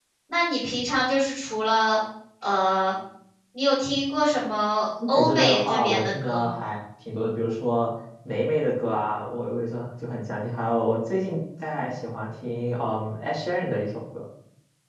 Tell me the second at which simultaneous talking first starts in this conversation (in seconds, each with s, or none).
5.0 s